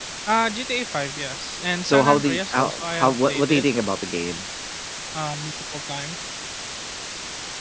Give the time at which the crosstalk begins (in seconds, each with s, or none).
1.8 s